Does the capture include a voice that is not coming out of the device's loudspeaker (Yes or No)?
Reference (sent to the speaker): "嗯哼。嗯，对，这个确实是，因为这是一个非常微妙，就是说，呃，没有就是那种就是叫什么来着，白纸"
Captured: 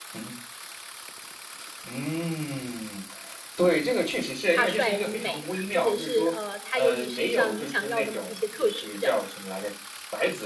Yes